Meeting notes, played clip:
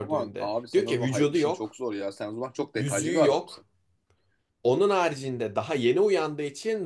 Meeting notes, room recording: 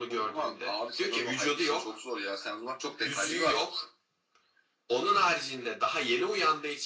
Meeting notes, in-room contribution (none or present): none